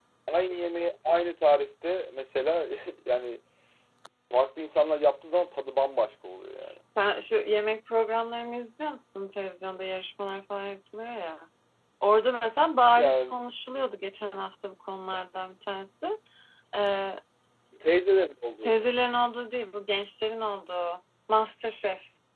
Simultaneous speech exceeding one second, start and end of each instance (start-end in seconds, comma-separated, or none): none